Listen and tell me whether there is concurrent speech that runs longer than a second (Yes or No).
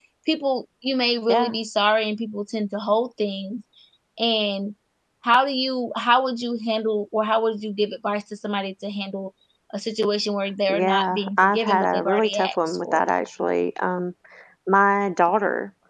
Yes